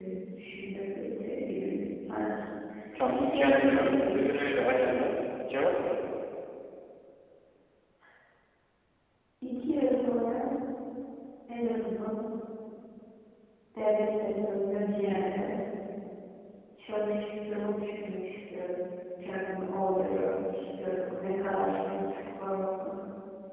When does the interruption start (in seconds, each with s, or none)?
3.1 s